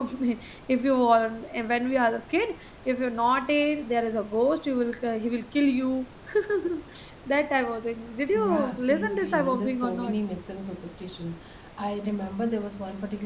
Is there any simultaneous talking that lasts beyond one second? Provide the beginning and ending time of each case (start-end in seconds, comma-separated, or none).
8.3-10.1